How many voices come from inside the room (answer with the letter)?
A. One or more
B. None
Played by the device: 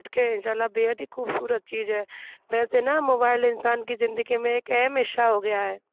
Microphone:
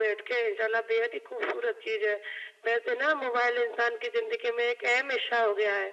B